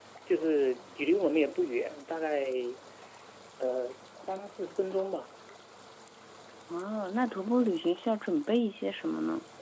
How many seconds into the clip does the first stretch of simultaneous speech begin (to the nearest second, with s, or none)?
none